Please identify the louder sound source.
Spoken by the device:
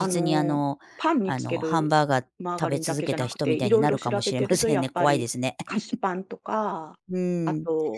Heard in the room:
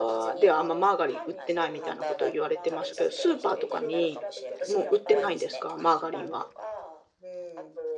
user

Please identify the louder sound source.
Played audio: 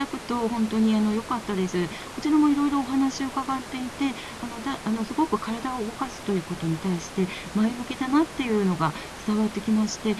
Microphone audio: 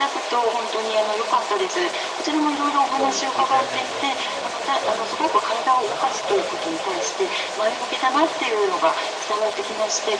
echo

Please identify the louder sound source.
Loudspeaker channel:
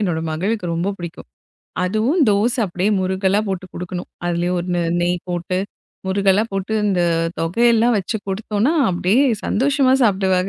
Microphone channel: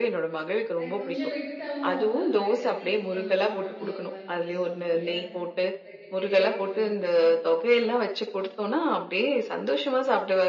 echo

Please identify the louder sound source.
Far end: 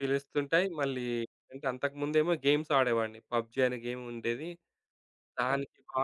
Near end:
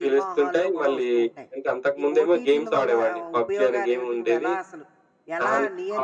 echo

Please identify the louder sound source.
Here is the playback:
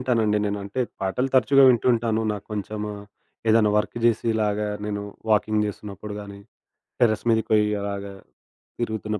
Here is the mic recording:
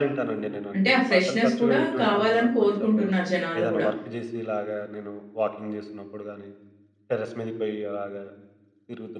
user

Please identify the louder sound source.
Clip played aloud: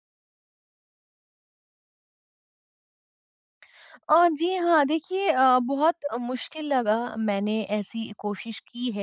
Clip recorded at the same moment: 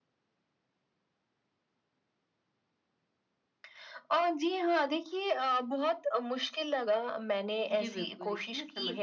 echo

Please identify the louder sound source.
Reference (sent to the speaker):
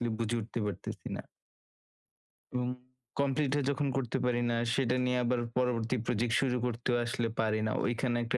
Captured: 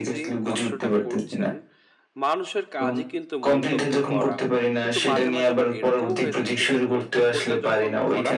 echo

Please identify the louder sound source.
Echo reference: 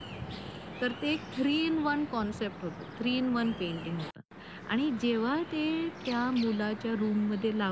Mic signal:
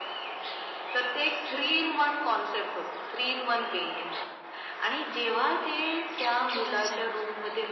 echo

